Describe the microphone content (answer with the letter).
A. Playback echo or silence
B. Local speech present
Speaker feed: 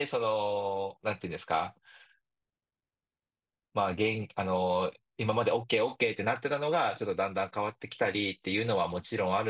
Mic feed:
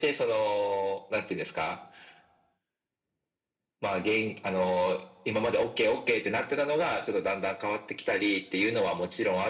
A